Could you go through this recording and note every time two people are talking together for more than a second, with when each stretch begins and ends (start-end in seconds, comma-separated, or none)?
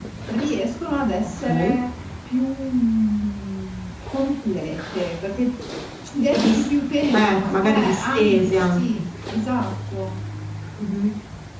7.1-8.8